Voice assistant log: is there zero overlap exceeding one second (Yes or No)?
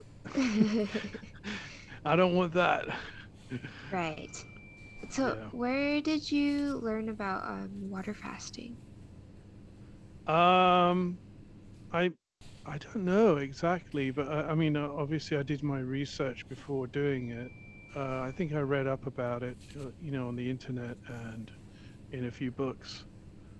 Yes